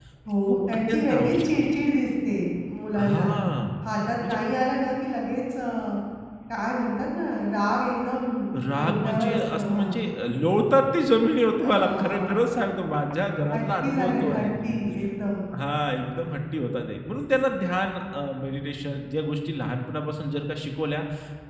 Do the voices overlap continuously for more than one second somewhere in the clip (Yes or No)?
Yes